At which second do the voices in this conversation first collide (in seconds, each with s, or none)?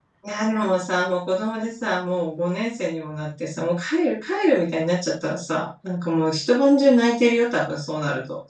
none